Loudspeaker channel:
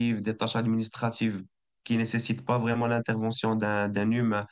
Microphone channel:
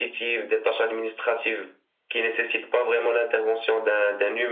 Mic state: echo only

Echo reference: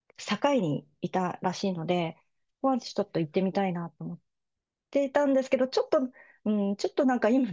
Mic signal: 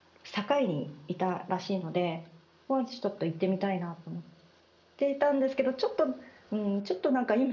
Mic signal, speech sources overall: echo only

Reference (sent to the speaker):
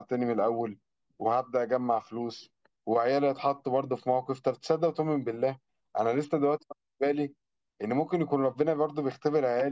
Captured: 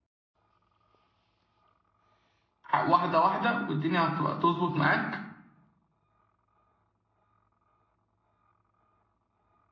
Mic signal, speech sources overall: user only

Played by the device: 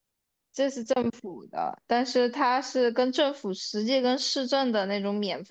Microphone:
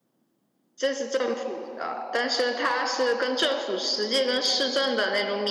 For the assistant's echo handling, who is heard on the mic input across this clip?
echo only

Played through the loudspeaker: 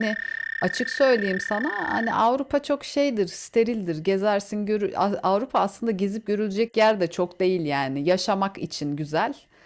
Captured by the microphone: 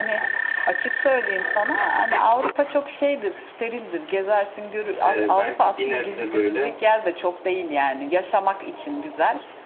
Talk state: both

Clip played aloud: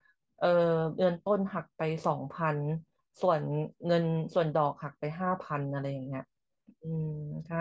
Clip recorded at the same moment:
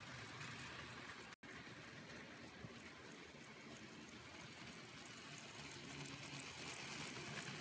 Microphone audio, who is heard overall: neither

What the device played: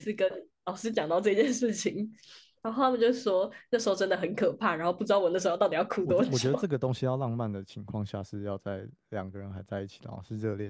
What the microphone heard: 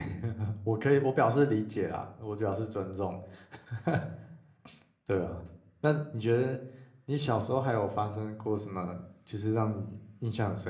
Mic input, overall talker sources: user only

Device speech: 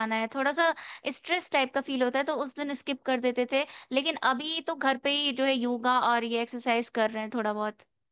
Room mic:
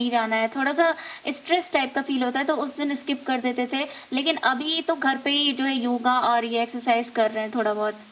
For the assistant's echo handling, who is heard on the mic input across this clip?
echo only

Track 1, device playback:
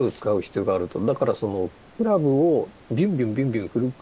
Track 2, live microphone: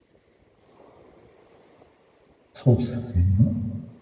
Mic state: user only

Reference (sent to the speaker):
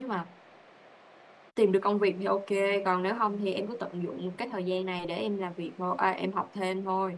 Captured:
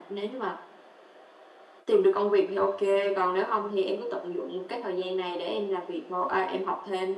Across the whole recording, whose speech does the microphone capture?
echo only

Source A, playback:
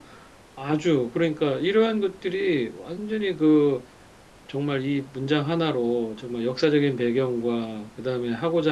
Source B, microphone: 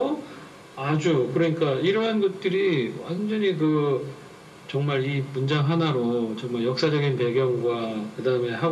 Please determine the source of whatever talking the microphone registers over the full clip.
echo only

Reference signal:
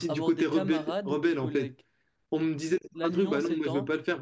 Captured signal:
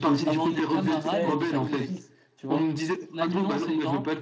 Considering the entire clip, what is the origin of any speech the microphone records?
both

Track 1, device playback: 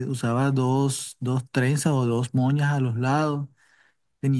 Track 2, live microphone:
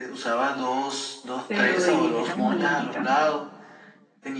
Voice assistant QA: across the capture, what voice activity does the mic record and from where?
both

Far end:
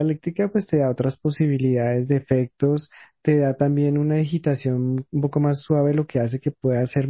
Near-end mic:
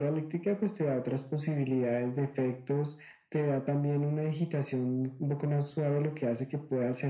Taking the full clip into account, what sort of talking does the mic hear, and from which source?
echo only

